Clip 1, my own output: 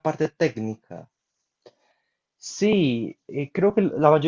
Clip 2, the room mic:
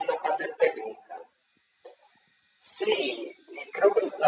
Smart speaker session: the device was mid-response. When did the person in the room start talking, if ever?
none

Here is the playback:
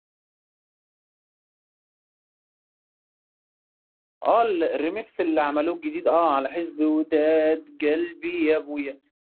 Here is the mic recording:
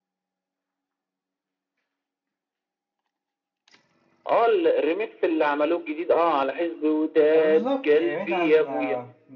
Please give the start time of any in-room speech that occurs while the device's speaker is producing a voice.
7.3 s

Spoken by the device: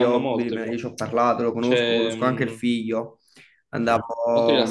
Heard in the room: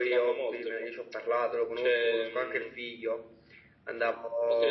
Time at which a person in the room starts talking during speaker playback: none

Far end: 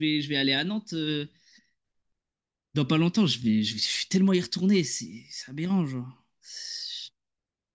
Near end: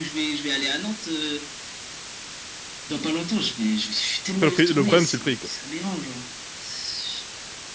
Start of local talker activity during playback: 4.4 s

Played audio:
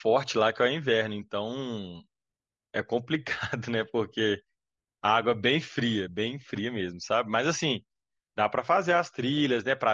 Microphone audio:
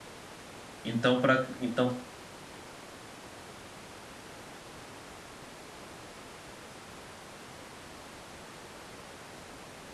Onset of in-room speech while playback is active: 0.8 s

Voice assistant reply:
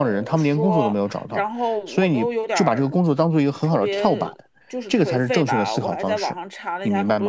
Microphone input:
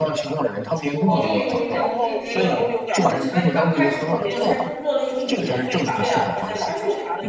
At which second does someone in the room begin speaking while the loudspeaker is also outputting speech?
1.1 s

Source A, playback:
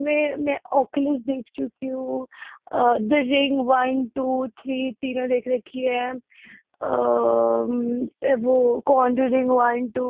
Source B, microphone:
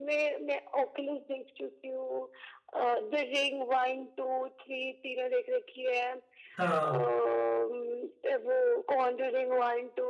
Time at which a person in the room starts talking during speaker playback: 6.6 s

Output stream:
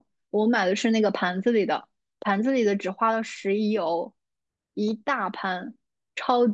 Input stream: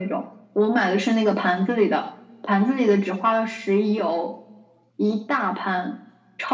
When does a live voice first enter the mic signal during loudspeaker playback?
none

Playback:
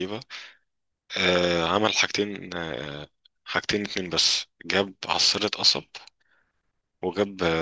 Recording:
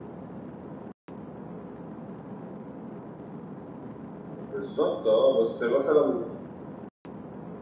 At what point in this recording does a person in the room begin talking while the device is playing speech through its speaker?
4.5 s

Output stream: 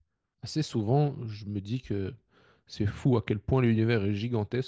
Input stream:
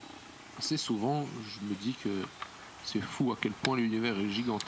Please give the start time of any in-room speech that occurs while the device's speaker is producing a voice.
none

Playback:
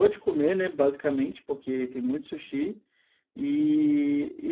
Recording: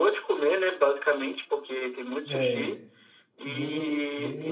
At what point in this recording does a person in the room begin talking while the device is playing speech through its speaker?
2.3 s

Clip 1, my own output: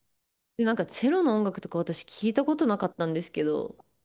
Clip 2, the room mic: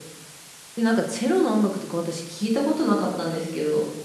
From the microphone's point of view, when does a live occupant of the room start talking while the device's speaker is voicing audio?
none

